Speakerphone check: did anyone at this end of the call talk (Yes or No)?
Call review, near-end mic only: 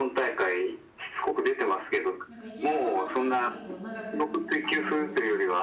Yes